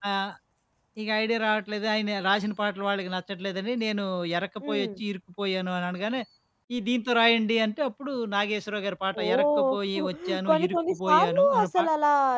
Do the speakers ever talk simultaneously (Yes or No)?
Yes